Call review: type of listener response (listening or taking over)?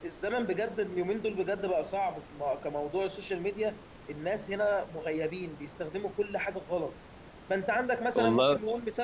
listening